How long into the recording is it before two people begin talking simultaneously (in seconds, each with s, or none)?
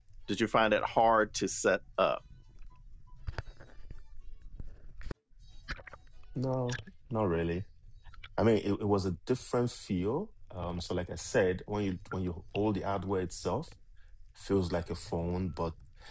none